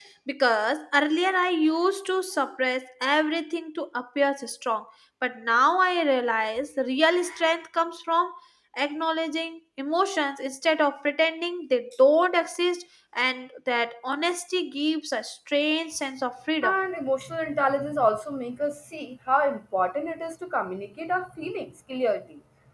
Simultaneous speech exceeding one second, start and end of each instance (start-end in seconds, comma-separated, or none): none